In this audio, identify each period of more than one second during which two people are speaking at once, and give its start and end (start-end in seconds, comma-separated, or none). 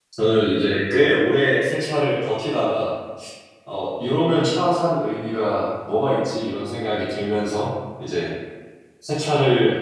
none